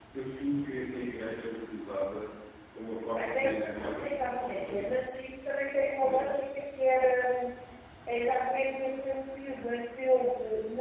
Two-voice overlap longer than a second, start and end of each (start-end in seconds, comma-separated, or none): 3.1-5.0